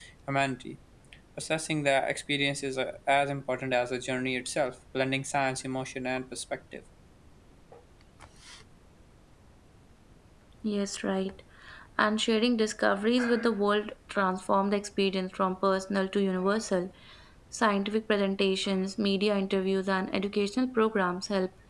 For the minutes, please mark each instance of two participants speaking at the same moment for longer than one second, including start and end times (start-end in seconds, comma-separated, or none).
none